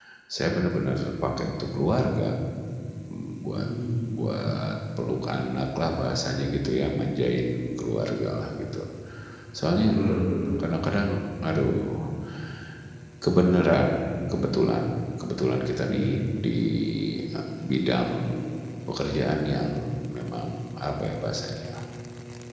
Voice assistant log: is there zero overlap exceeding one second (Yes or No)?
Yes